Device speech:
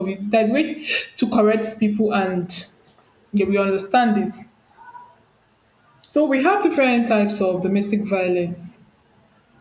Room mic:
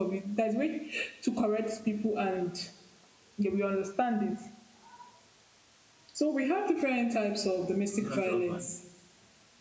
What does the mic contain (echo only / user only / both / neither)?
both